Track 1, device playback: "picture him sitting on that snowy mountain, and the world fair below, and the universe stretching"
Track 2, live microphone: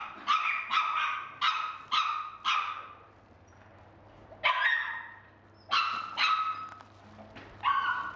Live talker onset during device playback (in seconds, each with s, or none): none